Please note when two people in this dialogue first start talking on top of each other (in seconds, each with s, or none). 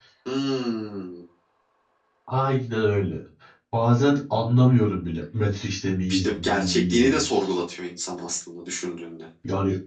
6.1 s